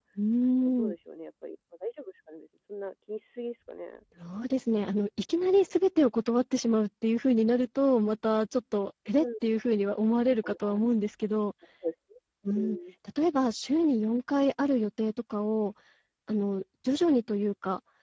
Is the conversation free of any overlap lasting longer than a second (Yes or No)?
Yes